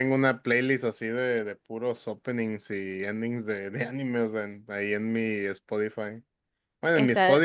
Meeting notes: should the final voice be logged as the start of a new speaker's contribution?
No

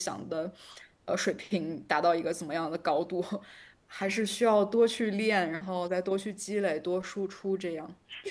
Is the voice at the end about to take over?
Yes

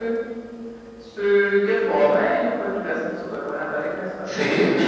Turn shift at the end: Yes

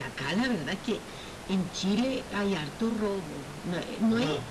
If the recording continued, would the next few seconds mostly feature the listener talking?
No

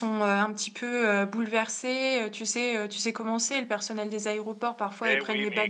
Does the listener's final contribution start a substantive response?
Yes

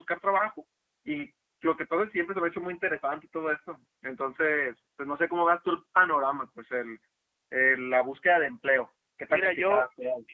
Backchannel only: No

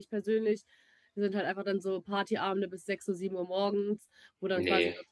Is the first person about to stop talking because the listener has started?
No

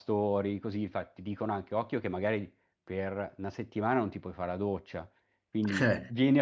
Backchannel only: Yes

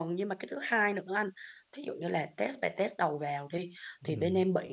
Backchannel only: Yes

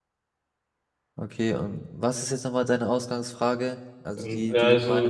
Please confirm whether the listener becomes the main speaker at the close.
Yes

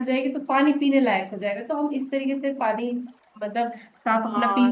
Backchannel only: No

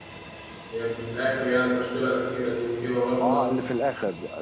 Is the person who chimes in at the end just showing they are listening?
No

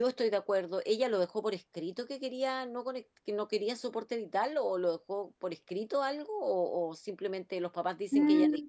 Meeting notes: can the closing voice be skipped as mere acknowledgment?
No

